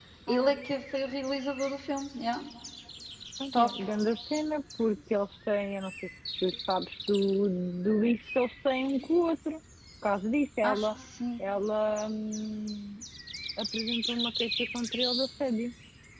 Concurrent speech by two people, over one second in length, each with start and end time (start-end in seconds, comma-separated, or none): none